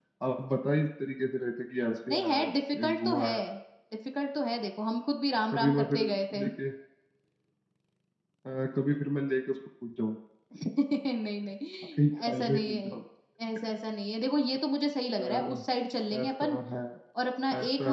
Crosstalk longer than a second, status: present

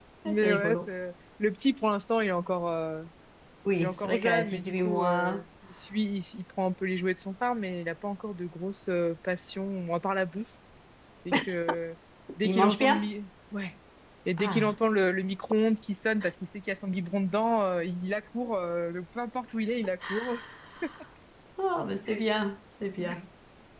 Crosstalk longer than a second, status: present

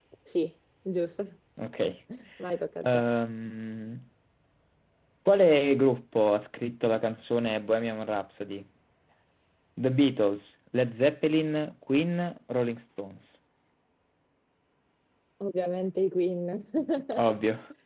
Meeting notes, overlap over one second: none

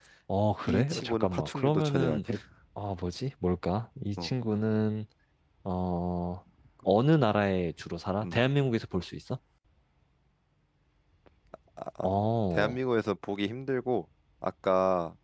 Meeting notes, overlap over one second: present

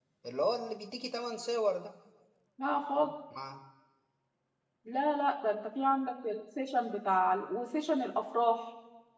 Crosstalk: none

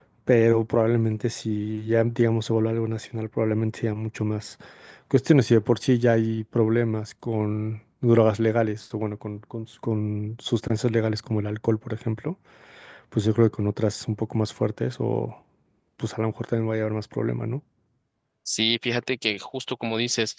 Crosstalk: none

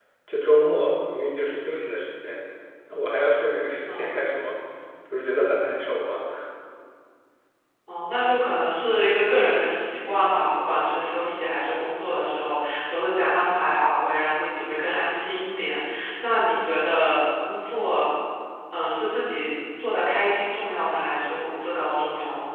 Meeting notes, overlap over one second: none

